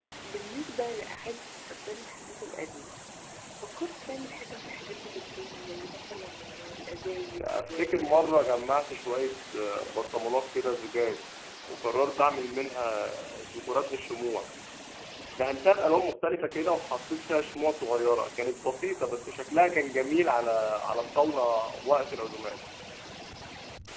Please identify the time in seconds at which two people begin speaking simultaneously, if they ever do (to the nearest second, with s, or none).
7 s